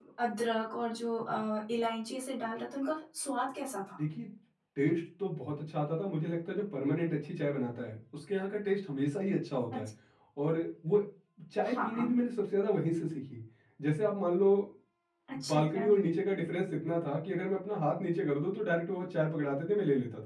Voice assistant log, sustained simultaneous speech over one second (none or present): none